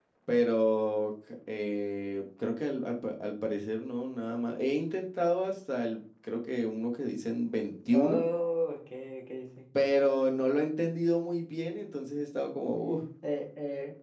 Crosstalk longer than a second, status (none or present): none